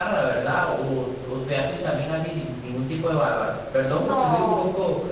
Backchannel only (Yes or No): Yes